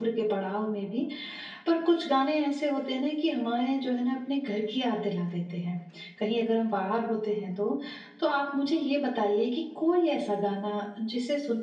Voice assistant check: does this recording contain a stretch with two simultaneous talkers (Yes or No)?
No